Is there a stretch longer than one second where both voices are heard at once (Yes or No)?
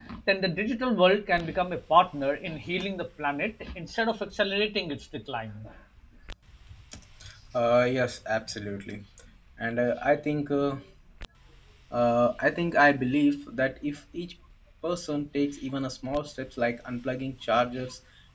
No